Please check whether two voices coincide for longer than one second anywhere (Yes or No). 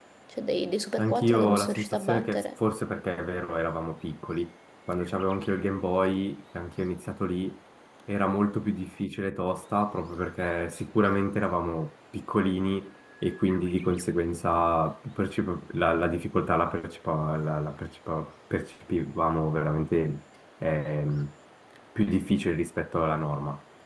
Yes